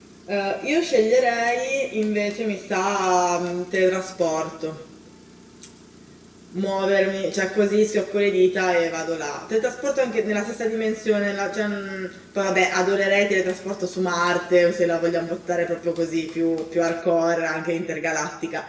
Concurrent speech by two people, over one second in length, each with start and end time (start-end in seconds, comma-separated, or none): none